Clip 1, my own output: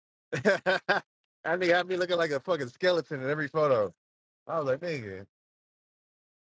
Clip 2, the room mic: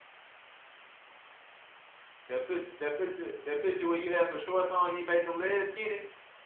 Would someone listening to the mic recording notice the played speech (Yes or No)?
No